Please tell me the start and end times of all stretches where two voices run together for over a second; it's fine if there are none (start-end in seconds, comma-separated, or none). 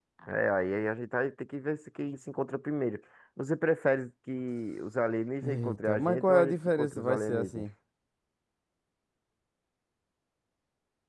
5.4-7.7